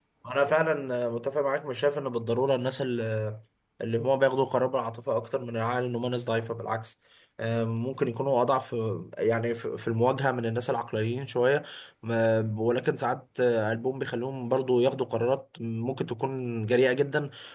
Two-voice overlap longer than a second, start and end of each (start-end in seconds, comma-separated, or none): none